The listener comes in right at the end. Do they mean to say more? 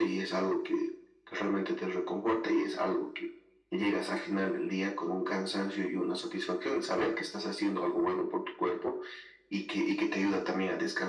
No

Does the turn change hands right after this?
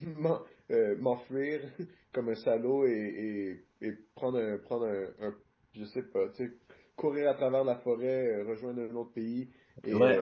Yes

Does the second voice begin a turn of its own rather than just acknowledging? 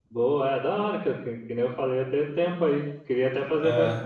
No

